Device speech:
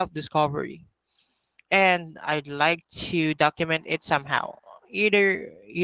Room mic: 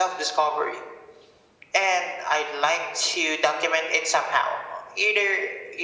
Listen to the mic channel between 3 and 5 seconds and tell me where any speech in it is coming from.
echo only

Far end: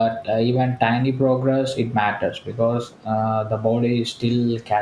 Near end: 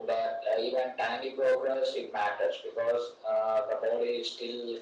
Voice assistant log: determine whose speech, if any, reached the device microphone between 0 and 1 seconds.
echo only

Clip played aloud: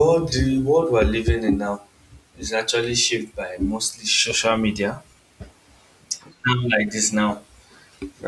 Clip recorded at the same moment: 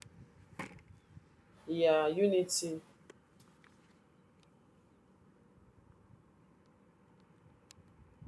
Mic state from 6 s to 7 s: neither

